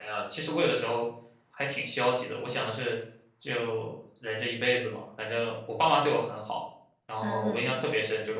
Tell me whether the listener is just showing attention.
Yes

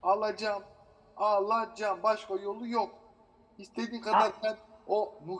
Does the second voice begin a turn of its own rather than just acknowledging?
No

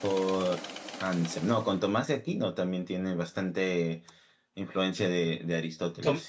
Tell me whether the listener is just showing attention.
No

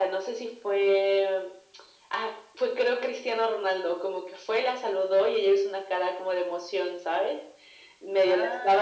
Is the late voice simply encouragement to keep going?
Yes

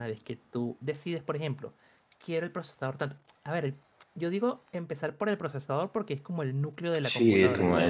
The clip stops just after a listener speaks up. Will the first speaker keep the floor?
No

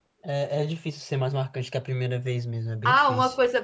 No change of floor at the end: No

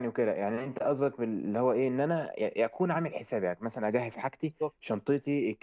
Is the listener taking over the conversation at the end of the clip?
No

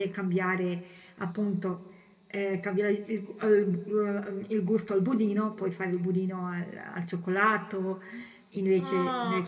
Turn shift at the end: Yes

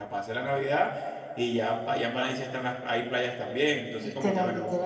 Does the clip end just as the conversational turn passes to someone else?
Yes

